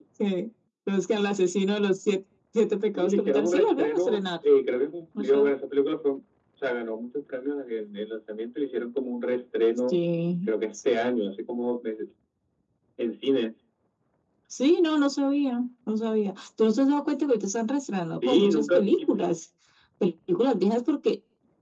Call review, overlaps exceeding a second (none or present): present